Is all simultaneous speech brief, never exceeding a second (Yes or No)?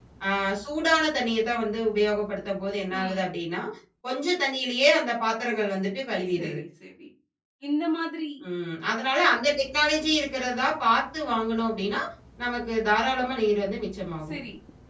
Yes